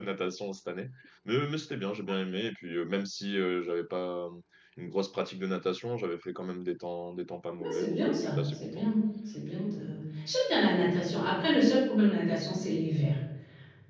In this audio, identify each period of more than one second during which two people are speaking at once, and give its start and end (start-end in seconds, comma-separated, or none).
7.6-8.9